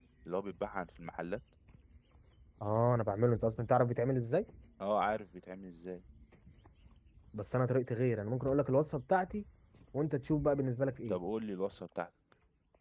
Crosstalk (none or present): none